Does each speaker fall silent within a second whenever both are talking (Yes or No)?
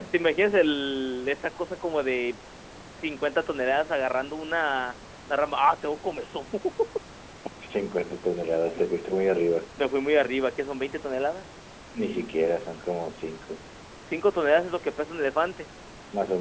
Yes